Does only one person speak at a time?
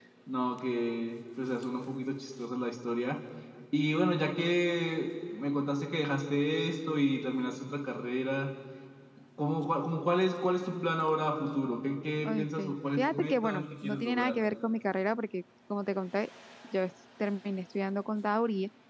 No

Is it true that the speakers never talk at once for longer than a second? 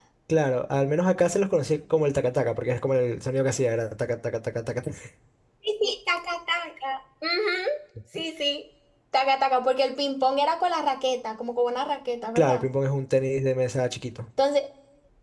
Yes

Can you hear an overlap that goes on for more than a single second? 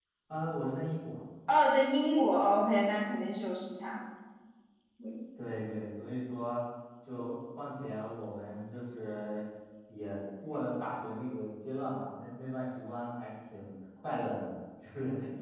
No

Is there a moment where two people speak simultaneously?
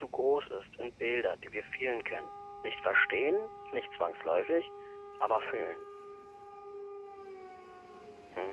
No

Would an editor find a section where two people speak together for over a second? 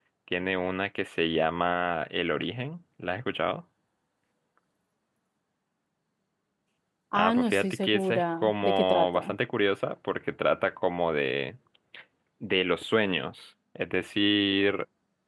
Yes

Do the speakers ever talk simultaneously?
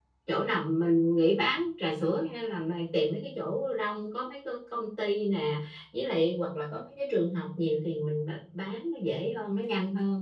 No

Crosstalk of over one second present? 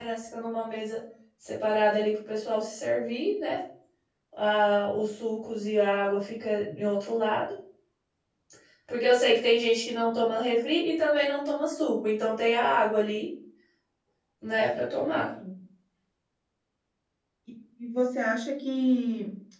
No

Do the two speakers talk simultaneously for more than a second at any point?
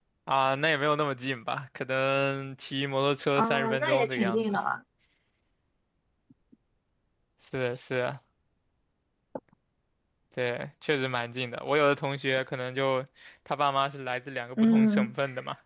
Yes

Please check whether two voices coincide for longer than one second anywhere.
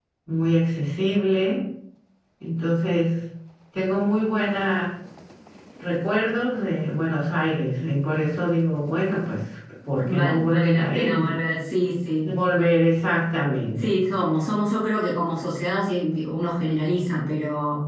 Yes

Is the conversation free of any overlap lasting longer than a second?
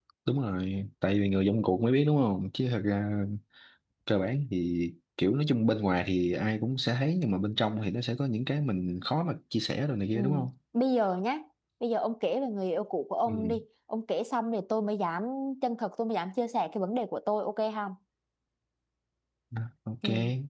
Yes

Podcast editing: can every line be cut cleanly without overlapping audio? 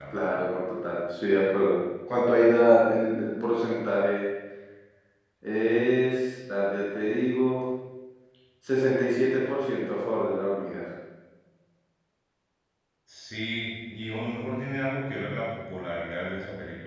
Yes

